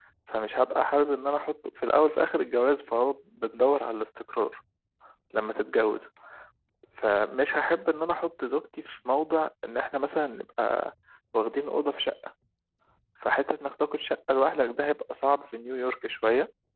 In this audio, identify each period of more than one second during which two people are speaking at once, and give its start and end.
none

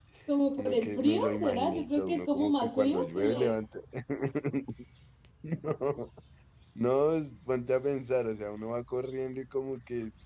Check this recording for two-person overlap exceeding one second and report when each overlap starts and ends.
0.6-3.6

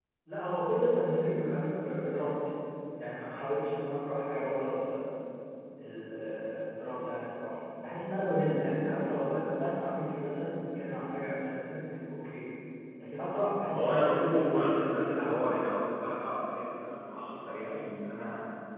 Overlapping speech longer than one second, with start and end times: 13.8-15.6

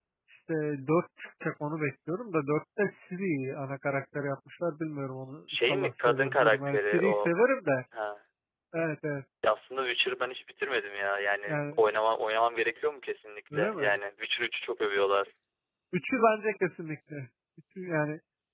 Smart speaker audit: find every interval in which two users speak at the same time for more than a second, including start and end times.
5.5-7.3

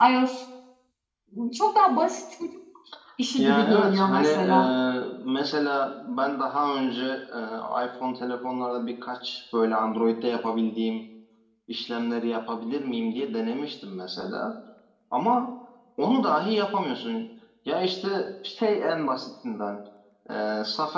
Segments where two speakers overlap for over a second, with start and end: 3.4-4.7

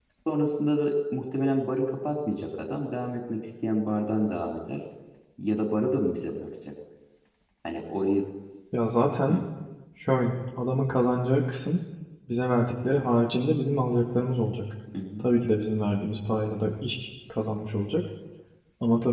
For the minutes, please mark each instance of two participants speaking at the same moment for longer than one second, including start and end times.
none

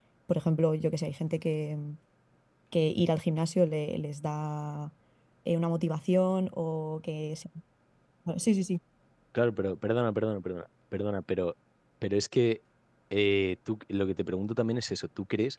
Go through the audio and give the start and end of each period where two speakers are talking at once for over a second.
none

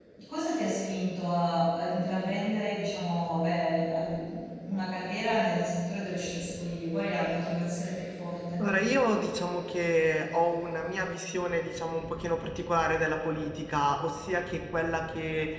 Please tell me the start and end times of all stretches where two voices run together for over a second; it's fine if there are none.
none

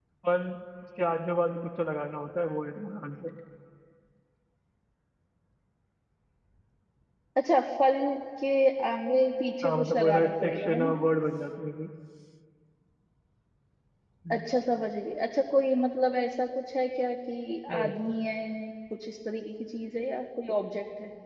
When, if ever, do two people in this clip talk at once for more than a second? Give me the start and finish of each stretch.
9.6-11.0

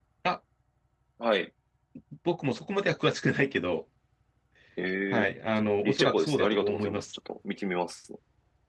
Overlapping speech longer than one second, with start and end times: 5.8-7.1

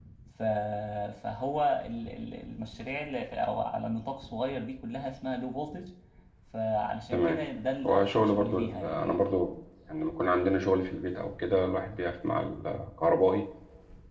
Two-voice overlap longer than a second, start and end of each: 7.8-9.0

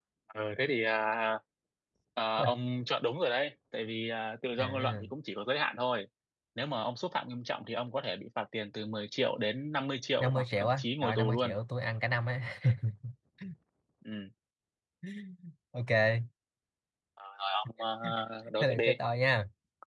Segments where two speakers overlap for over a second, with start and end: 10.2-11.6

